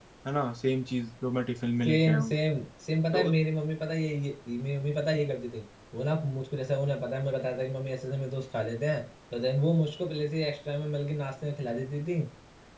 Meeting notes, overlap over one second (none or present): none